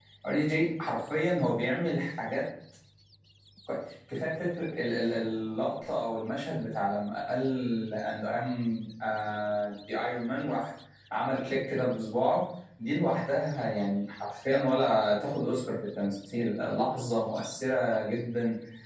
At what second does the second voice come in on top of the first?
none

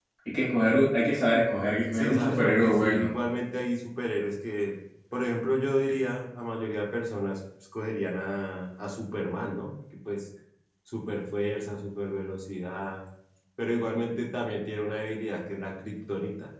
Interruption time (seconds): 2 s

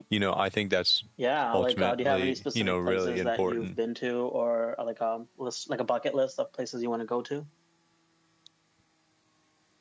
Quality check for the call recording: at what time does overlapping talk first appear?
2 s

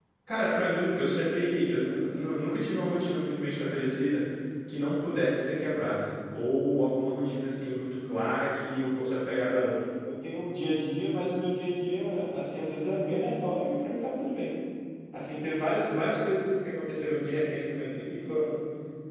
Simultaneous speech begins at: none

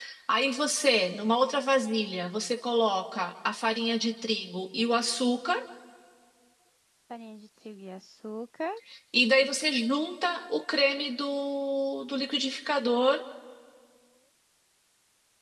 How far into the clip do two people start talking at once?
none

